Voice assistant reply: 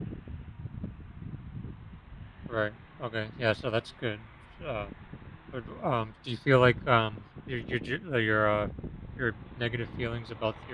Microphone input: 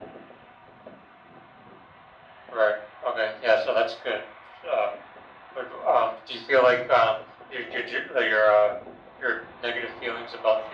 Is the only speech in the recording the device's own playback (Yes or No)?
Yes